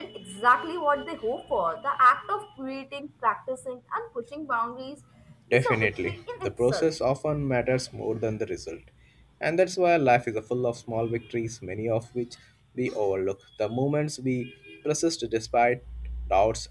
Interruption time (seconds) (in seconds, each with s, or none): 5.5 s